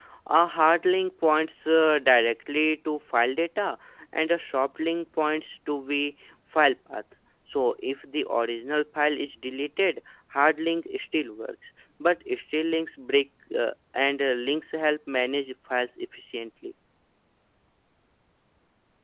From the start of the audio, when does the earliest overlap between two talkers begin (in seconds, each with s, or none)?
none